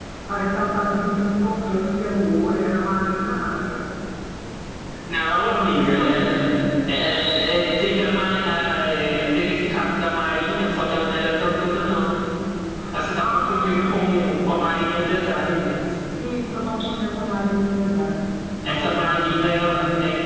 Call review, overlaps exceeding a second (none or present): present